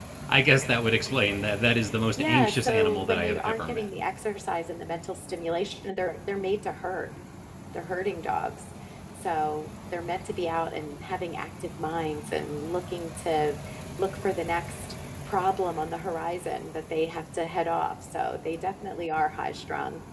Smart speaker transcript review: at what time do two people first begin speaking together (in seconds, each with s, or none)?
2.2 s